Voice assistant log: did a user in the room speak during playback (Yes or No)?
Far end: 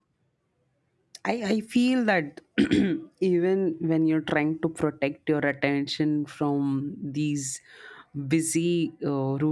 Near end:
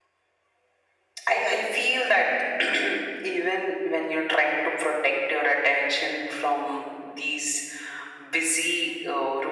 No